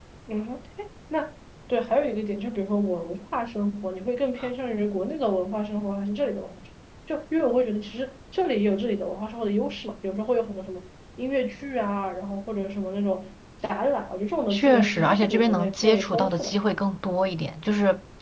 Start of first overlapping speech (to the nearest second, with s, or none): 15 s